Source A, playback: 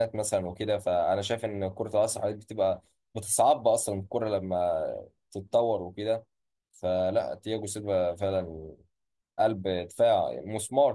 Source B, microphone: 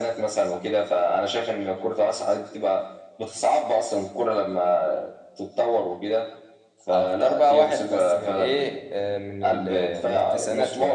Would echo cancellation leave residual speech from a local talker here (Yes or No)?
Yes